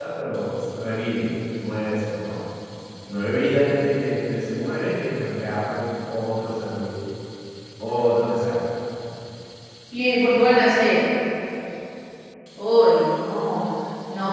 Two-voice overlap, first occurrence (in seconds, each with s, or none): none